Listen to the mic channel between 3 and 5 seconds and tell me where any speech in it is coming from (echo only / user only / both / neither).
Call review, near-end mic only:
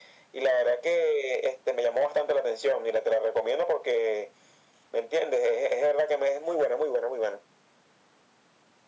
echo only